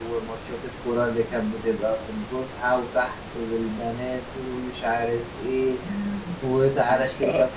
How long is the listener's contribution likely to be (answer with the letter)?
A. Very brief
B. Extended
A